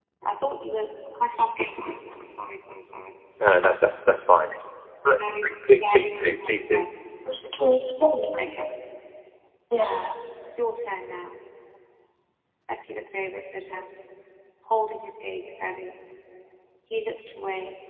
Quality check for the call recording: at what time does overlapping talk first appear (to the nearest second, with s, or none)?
5 s